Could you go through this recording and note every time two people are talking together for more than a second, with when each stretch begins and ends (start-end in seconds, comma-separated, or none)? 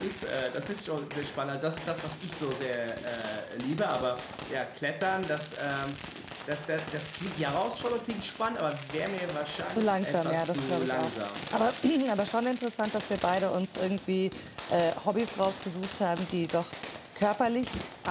9.7-11.1